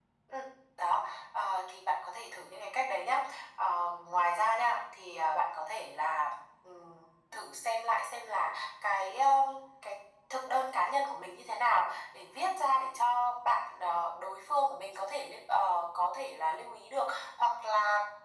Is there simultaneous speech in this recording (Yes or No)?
No